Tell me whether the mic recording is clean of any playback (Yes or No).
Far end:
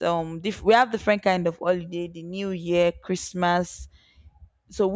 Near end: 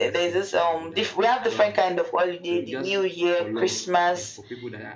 No